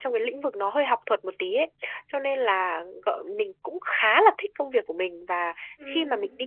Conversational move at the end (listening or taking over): listening